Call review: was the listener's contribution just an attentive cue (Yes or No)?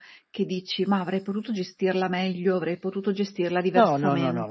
No